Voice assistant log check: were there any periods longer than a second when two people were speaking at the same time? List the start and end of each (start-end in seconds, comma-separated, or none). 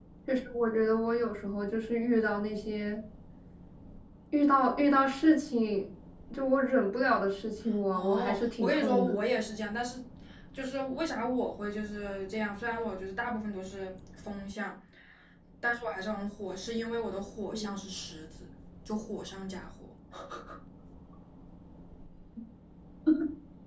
7.9-9.2